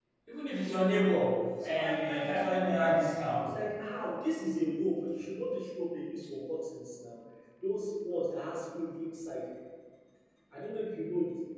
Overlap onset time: 1.6 s

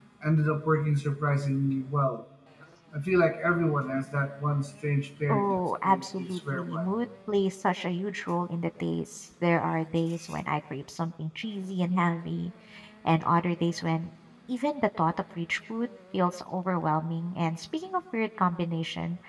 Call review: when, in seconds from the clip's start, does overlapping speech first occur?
5.3 s

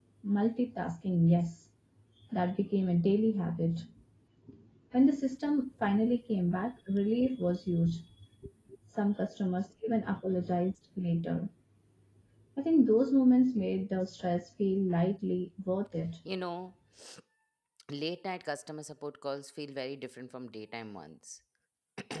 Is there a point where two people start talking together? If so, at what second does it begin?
none

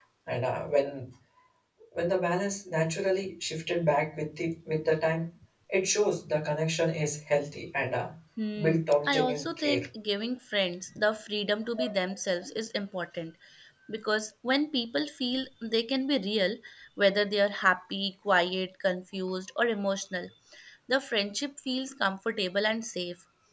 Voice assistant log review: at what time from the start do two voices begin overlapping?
8.6 s

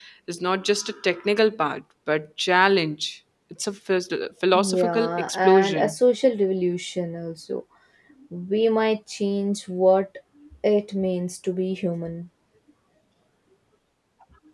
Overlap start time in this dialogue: 4.5 s

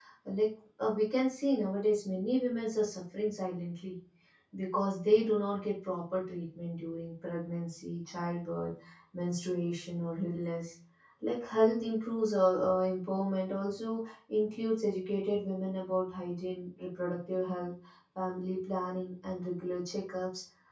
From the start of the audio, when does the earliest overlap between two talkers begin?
none

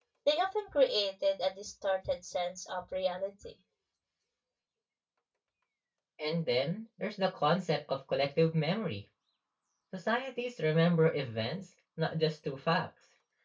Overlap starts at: none

